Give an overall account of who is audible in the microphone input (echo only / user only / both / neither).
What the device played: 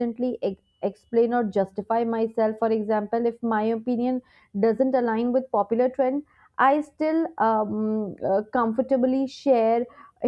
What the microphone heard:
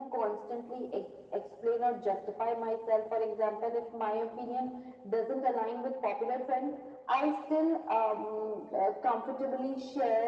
echo only